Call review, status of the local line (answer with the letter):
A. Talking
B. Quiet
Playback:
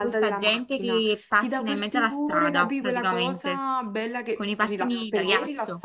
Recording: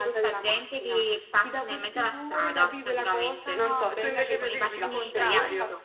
A